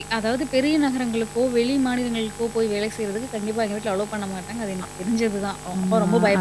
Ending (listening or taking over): taking over